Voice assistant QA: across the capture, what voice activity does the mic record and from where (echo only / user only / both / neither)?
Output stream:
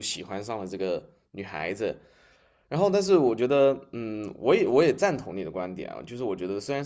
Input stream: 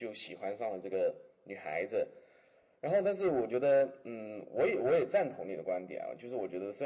echo only